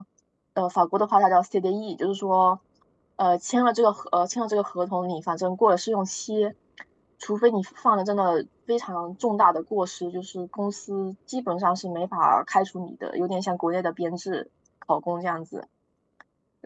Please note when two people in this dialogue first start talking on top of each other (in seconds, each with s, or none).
none